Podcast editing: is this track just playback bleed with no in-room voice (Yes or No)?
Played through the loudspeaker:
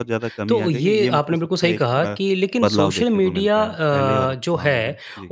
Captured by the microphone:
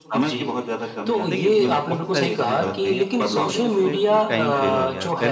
No